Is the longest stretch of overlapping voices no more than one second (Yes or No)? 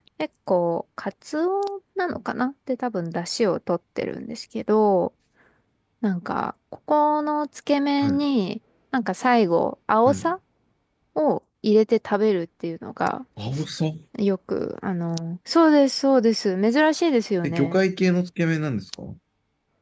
Yes